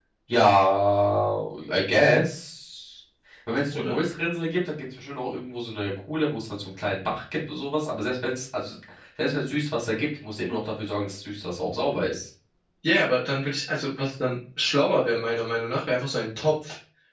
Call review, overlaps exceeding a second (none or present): none